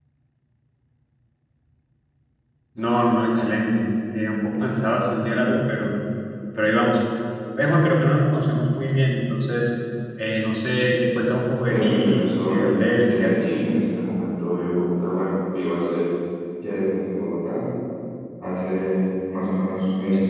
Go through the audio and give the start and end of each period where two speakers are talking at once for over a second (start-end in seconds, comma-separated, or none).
11.7-13.3